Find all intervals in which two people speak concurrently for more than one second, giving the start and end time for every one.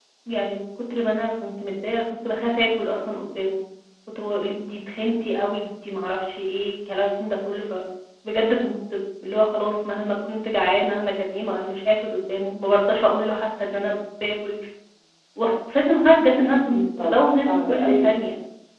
16.4-18.1

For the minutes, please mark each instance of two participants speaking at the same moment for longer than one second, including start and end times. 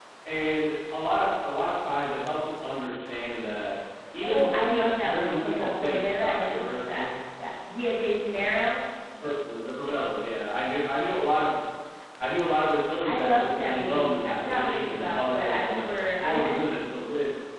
4.2-7.1, 13.0-16.6

